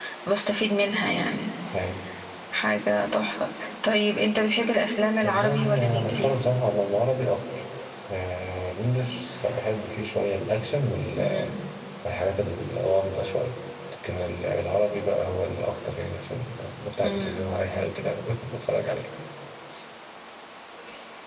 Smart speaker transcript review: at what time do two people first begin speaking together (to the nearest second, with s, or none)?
5 s